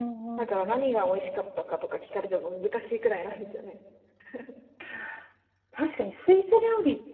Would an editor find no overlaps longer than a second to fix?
Yes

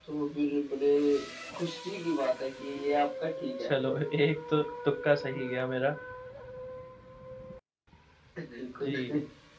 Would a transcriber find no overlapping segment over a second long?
Yes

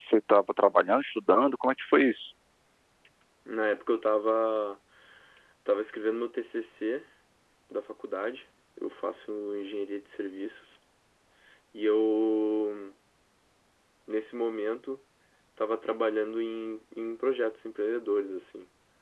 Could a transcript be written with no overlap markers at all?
Yes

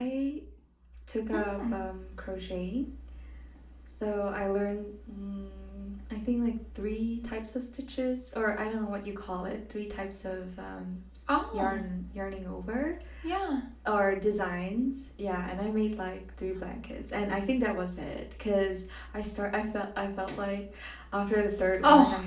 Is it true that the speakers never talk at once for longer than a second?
Yes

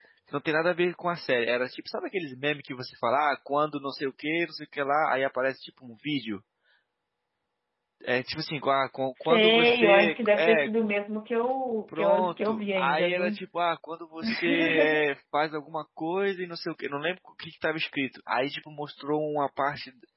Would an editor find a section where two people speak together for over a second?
Yes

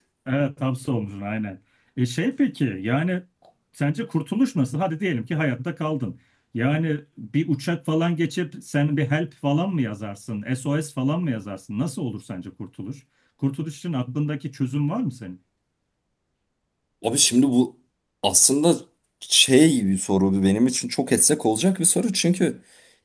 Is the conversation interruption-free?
Yes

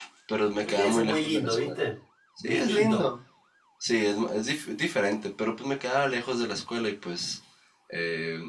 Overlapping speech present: Yes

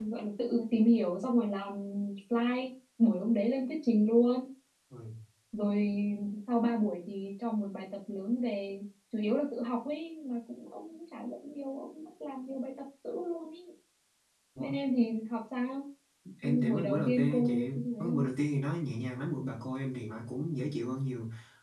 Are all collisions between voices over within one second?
No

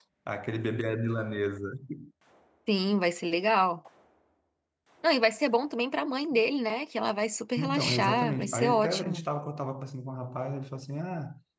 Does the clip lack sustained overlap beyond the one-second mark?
No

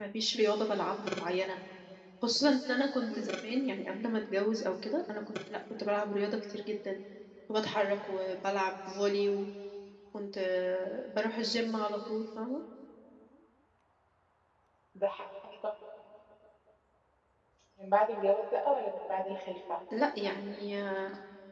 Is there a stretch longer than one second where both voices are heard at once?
No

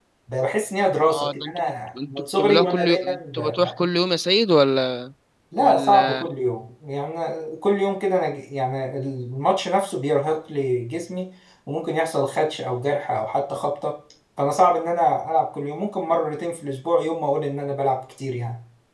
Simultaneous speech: Yes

